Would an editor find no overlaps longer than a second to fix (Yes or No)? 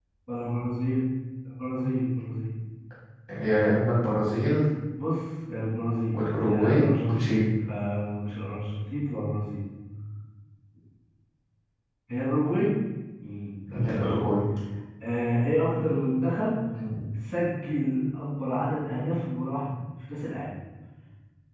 No